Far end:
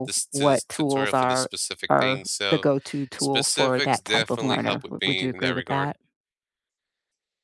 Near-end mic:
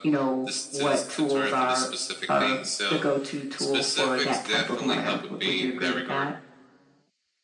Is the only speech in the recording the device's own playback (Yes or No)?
Yes